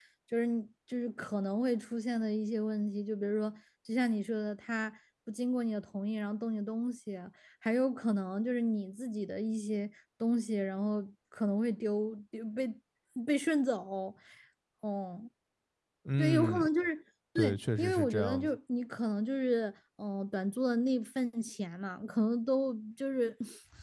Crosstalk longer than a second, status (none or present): present